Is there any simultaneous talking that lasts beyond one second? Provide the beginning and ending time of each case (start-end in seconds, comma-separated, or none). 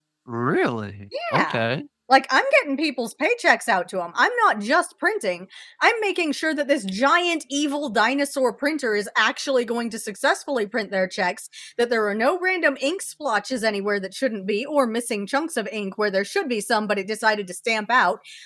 none